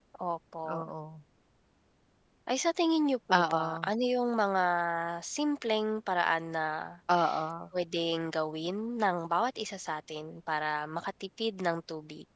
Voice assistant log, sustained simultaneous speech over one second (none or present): none